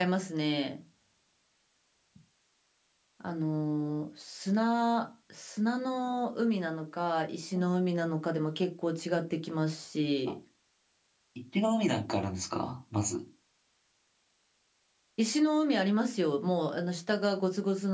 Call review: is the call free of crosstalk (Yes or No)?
Yes